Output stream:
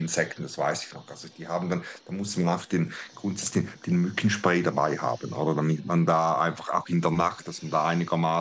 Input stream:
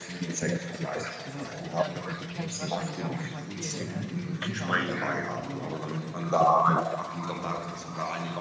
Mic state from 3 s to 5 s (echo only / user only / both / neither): both